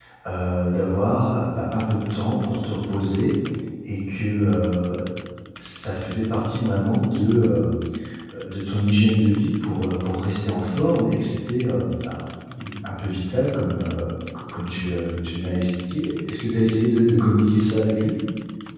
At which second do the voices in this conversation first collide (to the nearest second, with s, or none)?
none